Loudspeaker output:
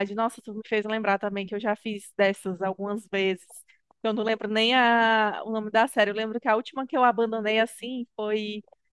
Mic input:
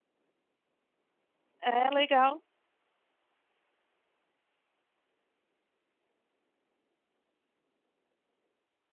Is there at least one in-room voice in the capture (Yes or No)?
Yes